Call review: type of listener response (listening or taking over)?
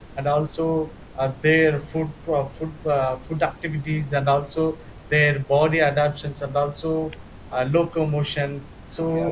listening